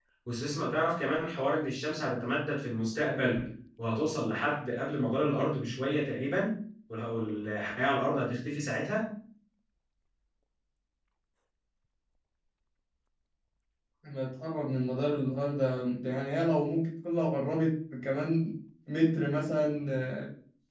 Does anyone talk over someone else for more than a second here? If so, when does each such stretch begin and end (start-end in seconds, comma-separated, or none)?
none